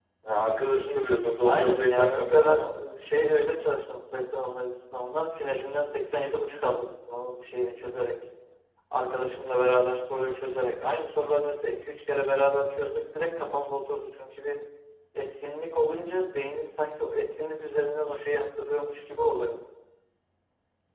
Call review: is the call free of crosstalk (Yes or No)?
No